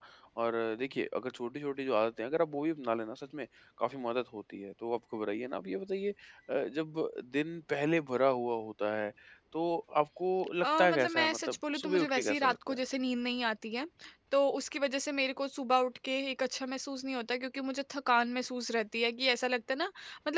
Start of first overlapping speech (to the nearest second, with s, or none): 11 s